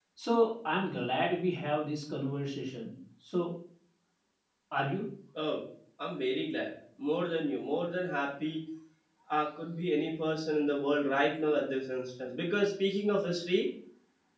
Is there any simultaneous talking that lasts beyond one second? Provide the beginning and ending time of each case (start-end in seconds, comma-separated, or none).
none